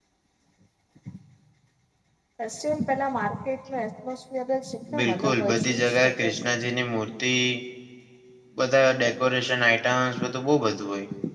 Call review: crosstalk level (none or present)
present